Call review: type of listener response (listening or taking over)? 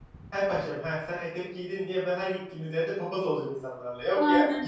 taking over